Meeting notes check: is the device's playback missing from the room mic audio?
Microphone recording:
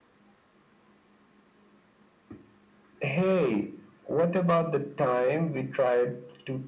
No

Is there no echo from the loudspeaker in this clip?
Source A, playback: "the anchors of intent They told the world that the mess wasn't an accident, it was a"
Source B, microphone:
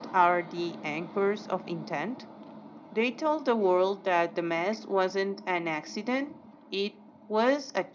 No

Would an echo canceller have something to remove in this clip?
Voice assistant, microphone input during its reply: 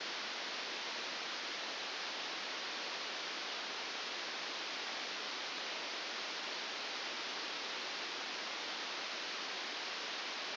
No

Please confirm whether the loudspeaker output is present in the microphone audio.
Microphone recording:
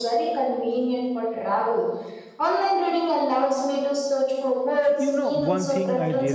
Yes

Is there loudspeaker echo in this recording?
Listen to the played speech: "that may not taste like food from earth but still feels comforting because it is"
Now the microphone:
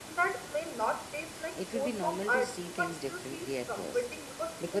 Yes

